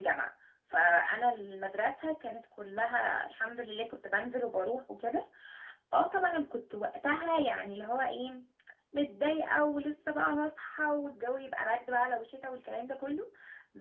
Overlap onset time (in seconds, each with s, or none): none